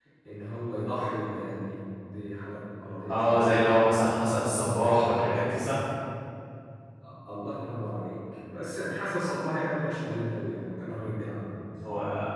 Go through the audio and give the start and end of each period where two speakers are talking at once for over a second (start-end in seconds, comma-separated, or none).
3.1-4.4